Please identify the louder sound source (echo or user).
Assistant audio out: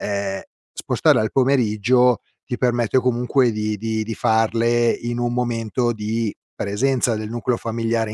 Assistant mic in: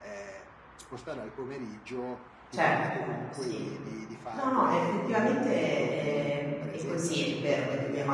user